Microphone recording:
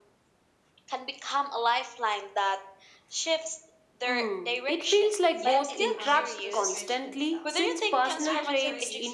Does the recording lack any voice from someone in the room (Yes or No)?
No